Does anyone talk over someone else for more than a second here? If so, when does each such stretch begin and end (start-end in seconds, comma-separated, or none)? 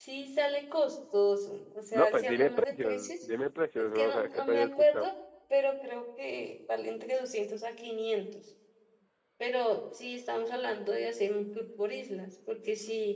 1.9-3.2, 3.8-5.1